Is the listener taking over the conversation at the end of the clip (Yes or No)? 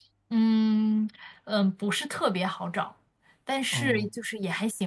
No